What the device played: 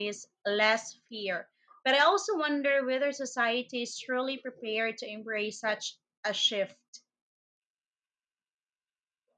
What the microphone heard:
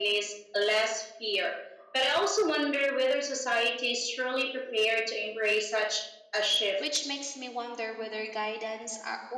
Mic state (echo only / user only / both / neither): both